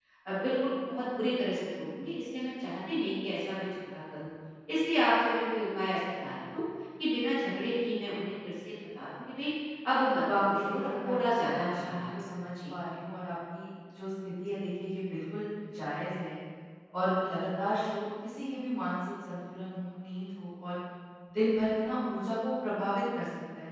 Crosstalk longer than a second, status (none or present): present